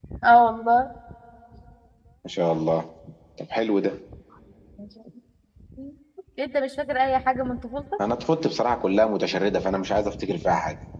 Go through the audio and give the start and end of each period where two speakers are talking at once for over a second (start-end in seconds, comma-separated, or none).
none